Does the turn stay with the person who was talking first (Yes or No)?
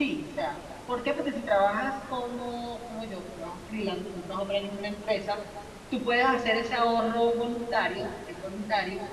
Yes